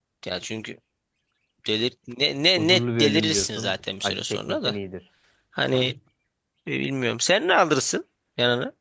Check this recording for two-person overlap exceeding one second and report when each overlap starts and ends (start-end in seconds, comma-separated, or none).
2.6-4.8